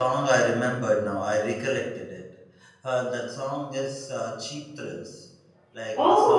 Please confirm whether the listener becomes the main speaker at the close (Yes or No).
Yes